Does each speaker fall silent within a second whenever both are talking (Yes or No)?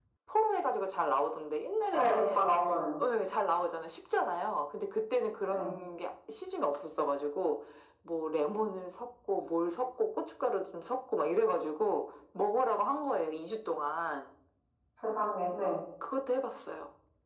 Yes